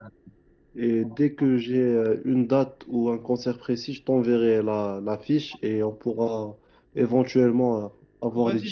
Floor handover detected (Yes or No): Yes